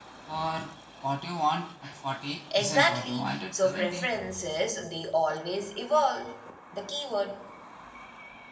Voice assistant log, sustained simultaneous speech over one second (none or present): present